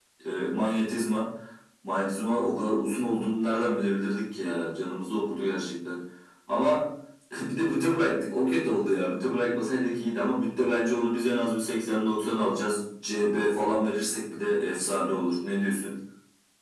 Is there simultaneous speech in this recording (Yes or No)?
No